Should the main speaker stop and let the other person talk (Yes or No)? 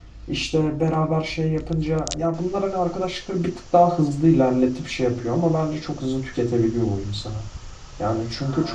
No